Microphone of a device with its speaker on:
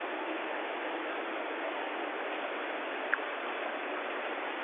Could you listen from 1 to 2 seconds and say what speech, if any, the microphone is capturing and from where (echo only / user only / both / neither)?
neither